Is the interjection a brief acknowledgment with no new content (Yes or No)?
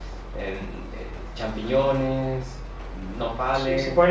No